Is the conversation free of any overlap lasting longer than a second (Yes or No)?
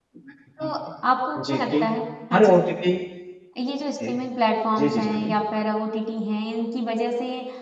Yes